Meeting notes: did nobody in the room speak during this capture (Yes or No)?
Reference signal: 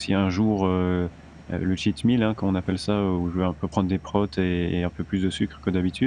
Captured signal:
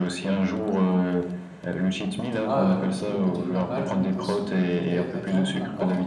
No